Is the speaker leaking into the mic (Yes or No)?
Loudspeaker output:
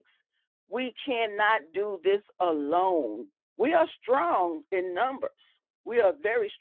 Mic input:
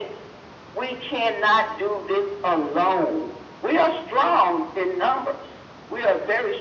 Yes